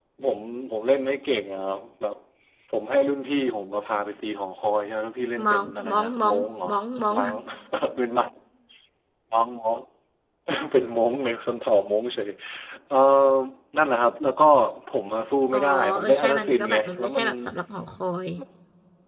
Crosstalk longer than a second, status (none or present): present